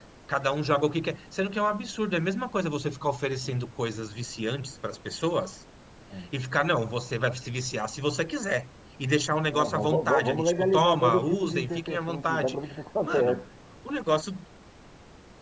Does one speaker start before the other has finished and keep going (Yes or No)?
Yes